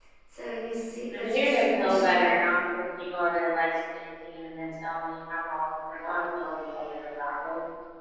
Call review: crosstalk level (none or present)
present